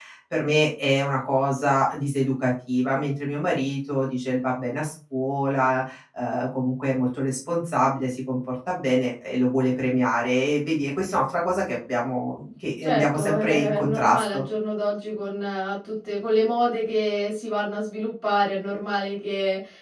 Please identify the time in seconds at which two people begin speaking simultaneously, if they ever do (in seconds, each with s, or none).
12.8 s